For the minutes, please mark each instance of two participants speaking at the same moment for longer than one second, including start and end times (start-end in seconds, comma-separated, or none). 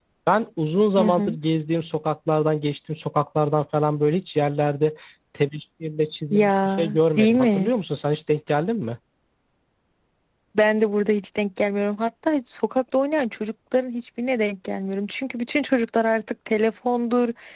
6.3-7.7